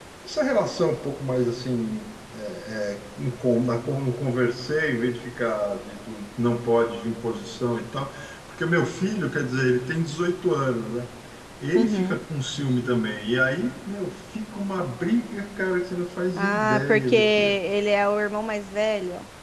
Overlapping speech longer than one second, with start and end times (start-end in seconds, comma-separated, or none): 16.4-17.6